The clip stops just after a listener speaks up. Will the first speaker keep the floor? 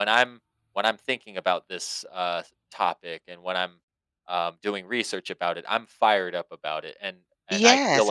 No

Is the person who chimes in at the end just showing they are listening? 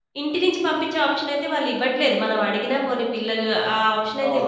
No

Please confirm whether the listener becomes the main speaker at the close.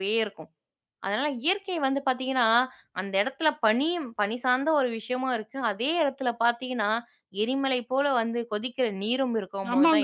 Yes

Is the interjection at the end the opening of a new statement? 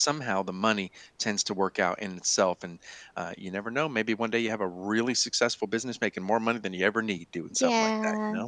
Yes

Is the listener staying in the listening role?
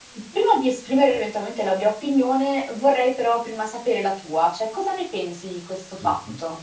No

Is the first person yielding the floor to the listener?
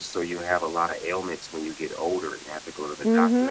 Yes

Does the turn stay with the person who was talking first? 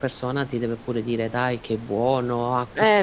No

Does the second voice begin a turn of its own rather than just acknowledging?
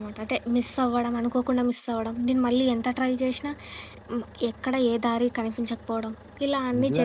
Yes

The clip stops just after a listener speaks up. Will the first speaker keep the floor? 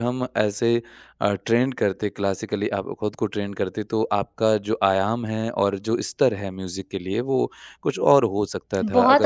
No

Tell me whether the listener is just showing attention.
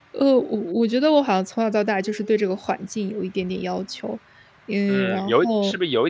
No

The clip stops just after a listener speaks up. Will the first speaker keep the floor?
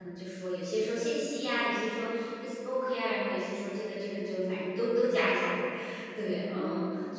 No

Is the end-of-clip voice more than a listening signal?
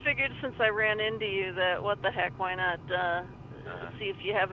No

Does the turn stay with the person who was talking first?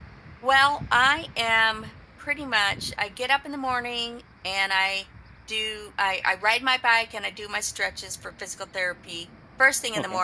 Yes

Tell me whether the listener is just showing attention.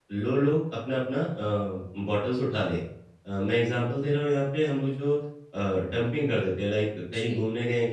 Yes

